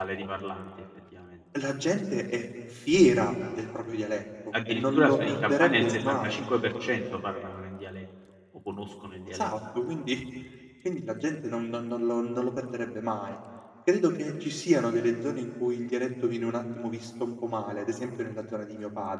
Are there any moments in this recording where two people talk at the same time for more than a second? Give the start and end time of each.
4.5-6.5

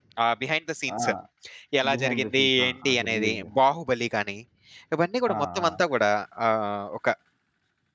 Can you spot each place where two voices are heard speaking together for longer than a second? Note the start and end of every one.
1.9-3.5

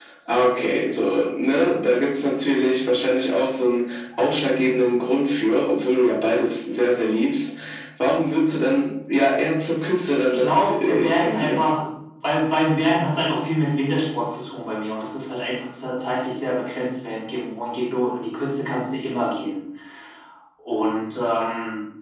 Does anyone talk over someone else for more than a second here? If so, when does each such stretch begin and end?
10.1-11.7

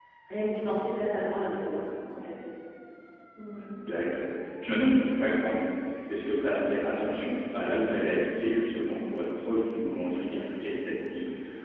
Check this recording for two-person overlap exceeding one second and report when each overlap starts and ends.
none

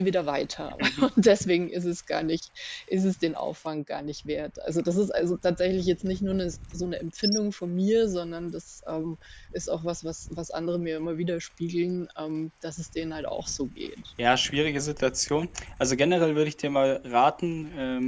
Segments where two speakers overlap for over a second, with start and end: none

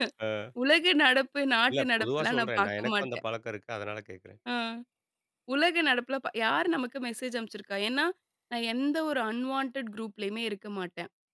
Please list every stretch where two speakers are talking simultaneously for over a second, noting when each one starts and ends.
1.7-3.1

